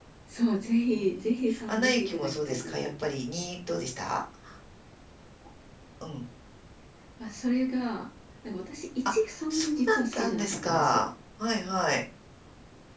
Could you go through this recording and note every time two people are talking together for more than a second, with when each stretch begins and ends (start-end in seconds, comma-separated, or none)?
0.9-2.8, 9.5-11.0